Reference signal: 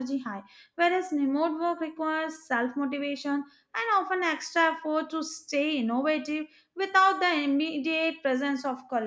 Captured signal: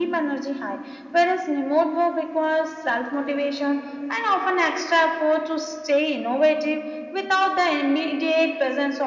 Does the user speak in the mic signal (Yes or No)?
No